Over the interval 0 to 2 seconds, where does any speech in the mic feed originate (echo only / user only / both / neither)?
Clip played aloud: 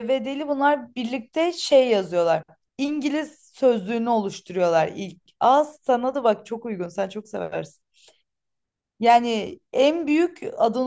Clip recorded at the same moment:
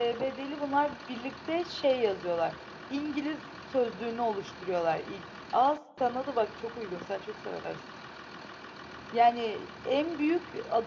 echo only